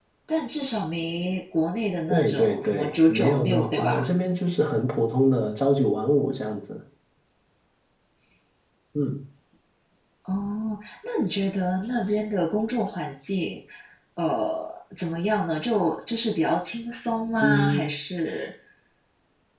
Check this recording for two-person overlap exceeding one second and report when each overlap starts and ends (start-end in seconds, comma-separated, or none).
2.1-4.1